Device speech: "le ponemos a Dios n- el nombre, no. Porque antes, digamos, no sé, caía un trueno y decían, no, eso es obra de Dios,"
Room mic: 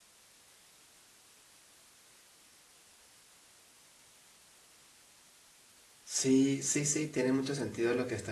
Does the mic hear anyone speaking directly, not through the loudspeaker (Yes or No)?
Yes